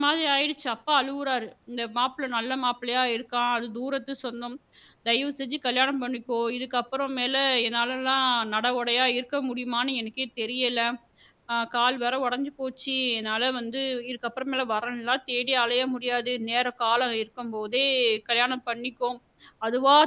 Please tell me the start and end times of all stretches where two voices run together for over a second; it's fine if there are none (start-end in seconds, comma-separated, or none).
none